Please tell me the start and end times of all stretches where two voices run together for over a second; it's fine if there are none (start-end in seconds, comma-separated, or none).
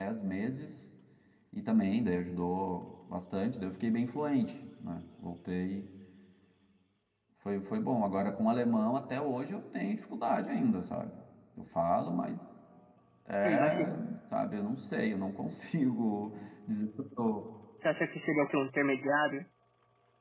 none